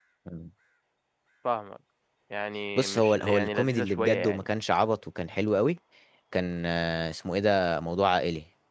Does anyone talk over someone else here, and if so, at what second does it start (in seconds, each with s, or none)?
2.8 s